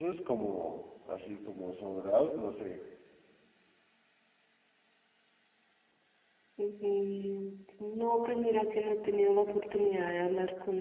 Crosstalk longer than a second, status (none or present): none